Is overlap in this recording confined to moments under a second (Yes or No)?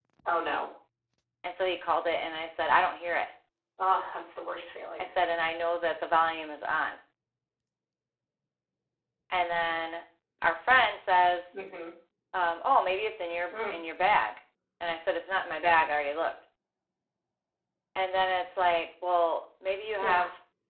Yes